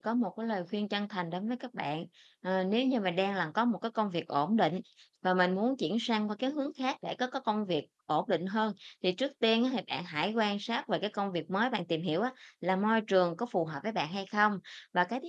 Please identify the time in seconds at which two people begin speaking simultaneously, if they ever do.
none

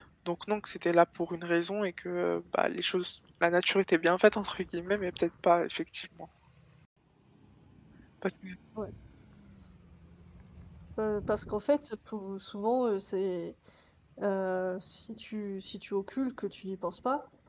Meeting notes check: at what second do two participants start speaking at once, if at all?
none

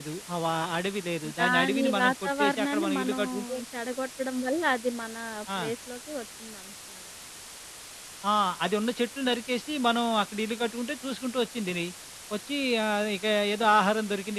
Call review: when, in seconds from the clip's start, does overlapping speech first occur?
1 s

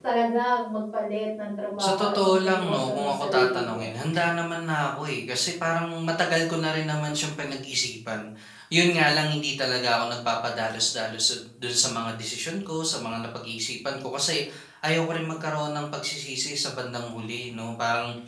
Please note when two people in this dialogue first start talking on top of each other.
2 s

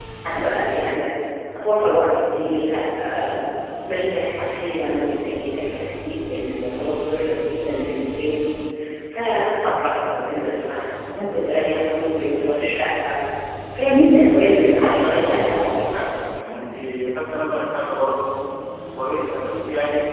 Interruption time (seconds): 15 s

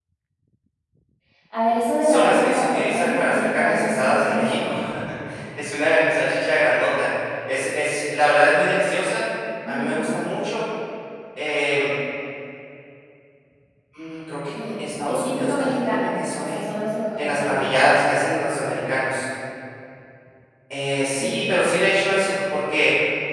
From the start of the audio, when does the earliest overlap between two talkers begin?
2 s

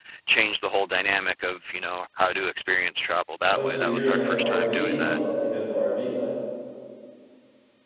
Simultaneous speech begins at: 3 s

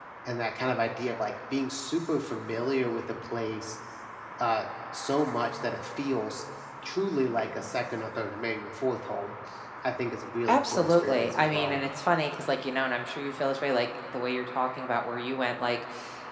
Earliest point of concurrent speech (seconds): 10 s

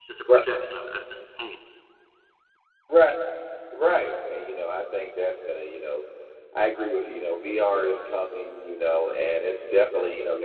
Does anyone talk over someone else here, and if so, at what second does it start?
none

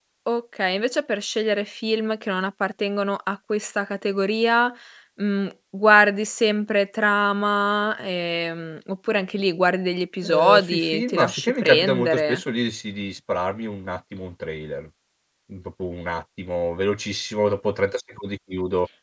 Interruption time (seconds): 10 s

